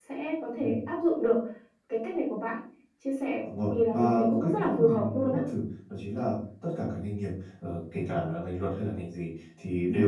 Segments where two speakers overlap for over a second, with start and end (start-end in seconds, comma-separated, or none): 3.4-5.4